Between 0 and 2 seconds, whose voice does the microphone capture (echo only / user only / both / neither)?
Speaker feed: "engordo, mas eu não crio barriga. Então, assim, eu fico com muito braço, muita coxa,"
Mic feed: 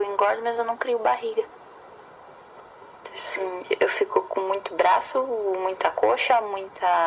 echo only